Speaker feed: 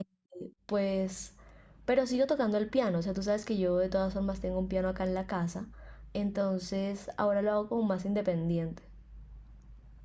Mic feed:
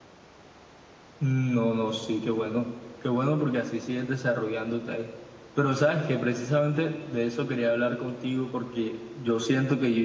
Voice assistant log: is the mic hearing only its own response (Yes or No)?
No